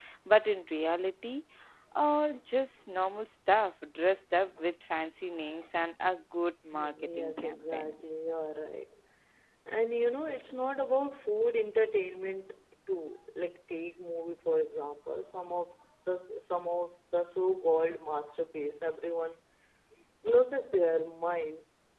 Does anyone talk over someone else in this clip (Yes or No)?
Yes